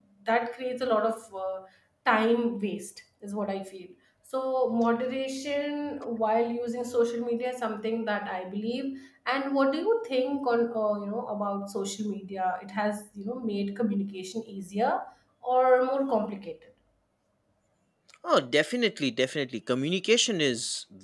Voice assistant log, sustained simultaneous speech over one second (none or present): none